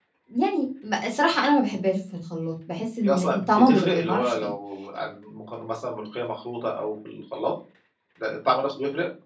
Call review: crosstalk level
present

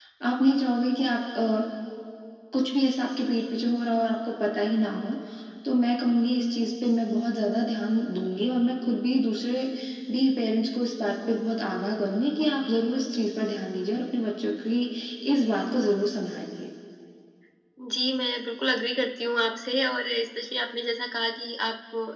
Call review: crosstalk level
none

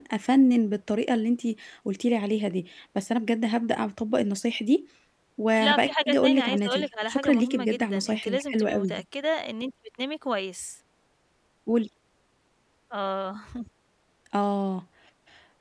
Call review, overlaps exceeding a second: present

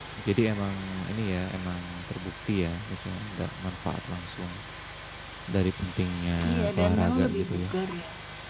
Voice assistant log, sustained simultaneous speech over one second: present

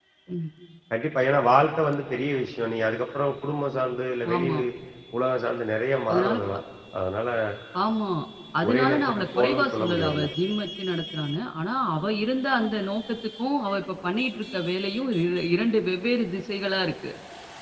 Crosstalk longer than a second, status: present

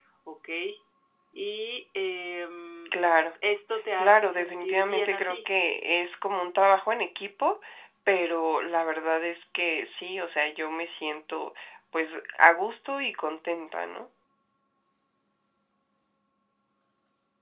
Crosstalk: present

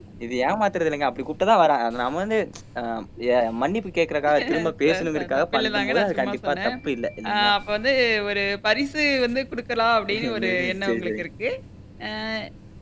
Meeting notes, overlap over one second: present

